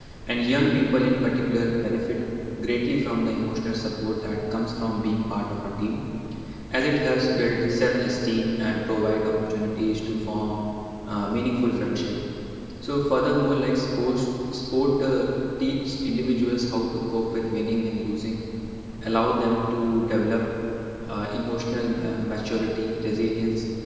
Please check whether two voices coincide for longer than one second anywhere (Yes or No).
No